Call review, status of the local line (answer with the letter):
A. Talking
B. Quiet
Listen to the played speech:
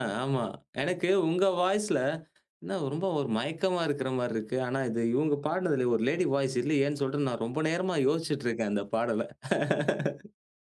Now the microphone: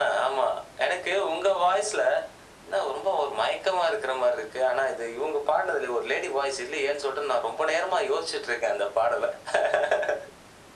B